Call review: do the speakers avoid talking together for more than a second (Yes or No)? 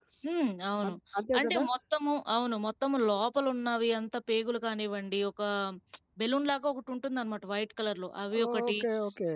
Yes